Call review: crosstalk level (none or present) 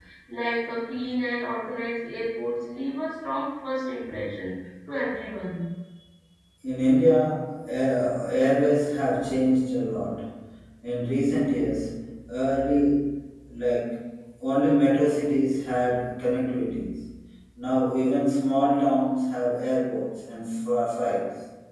none